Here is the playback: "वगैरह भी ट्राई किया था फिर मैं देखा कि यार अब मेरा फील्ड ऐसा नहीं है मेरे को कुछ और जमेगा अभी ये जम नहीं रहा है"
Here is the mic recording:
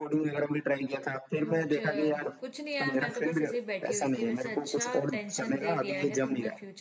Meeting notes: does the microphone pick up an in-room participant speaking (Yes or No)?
Yes